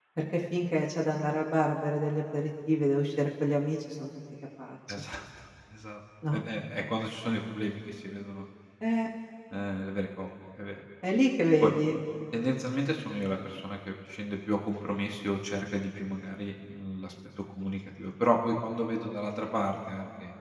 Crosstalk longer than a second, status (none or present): none